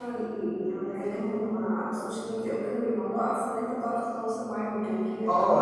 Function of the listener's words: taking over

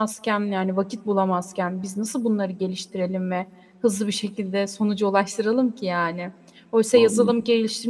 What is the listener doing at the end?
listening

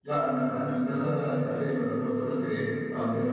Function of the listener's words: listening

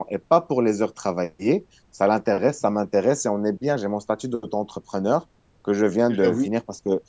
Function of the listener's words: listening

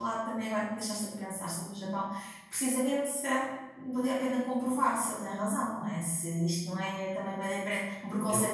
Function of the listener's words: taking over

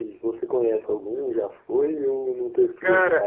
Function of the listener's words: taking over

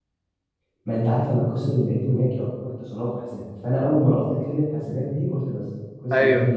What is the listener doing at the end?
taking over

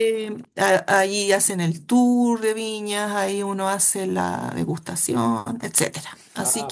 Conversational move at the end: taking over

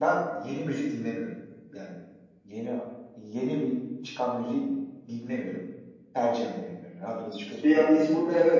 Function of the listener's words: taking over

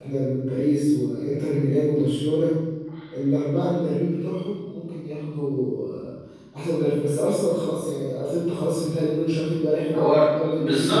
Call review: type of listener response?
taking over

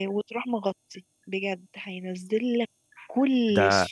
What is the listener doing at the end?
taking over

